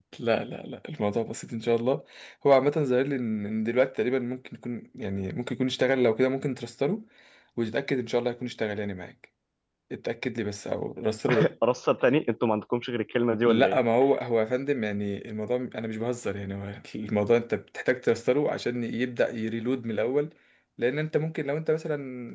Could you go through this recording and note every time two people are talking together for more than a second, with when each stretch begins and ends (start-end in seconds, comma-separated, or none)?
none